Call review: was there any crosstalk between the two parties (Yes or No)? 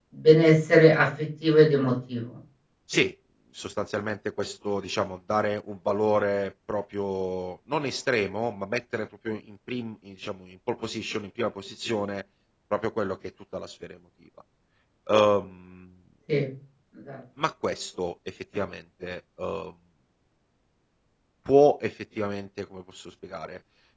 No